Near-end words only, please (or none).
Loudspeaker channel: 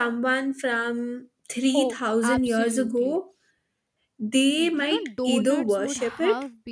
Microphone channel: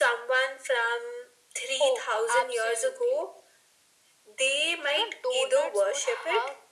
none